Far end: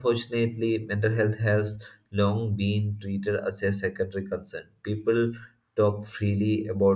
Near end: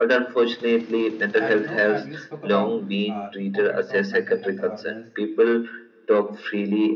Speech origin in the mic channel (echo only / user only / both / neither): both